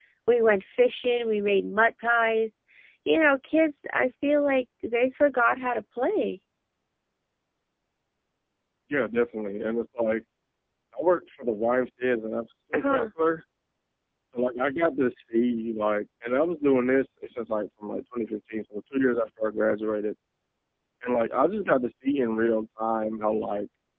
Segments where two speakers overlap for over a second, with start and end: none

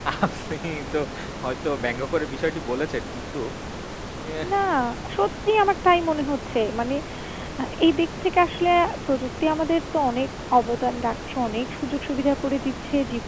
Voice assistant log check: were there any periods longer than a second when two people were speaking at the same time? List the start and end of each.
none

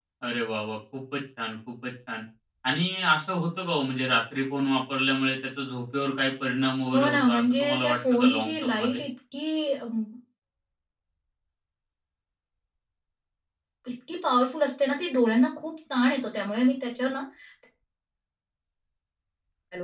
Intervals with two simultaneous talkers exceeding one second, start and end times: 6.9-9.0

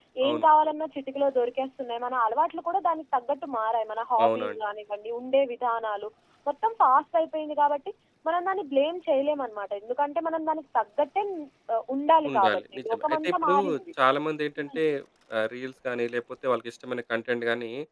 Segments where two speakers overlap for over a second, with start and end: 12.3-13.6

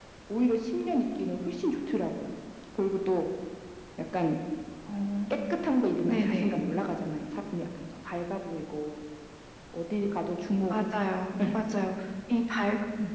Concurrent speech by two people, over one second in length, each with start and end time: none

